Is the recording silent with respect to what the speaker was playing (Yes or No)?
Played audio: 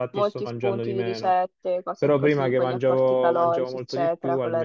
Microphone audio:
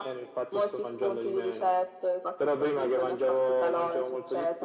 No